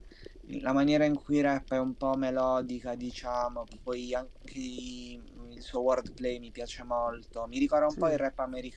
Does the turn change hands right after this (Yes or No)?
No